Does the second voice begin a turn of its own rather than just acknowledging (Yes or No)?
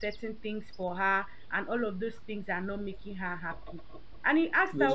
No